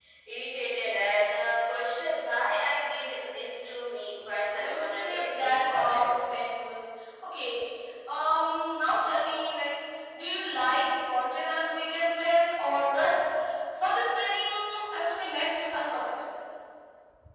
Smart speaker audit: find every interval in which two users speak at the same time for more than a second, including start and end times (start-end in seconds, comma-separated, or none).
4.5-6.1